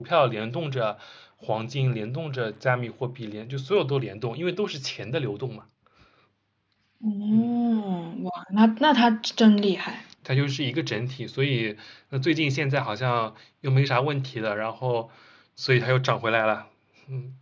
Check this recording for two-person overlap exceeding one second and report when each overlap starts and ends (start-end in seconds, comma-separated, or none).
none